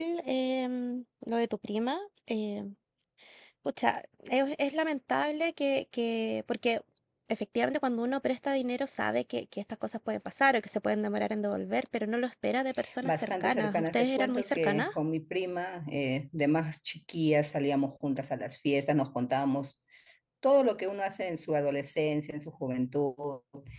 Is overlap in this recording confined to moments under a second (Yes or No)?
No